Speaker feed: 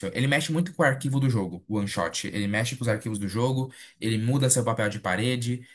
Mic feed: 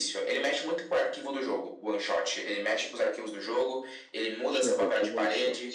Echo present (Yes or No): Yes